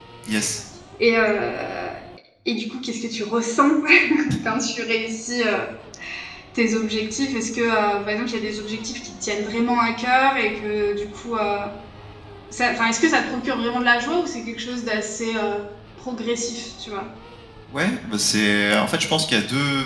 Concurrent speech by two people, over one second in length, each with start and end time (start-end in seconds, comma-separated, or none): none